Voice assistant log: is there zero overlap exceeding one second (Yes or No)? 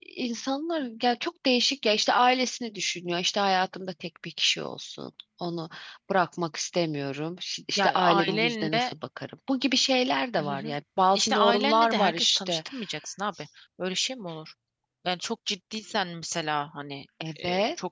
No